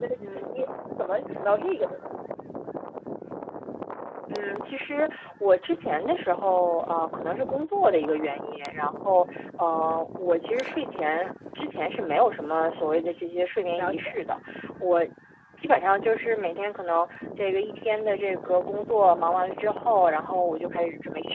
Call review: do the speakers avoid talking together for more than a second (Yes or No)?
Yes